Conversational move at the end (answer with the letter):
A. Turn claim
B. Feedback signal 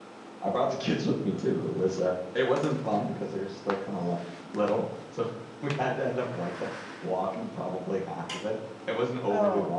B